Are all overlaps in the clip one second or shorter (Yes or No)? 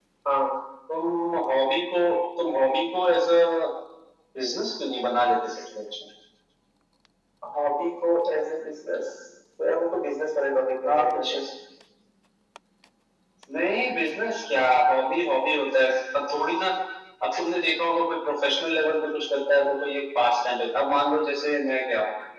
Yes